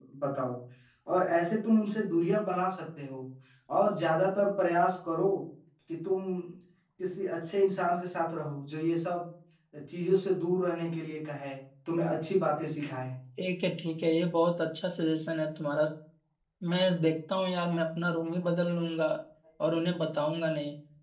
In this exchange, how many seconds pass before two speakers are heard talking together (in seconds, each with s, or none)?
none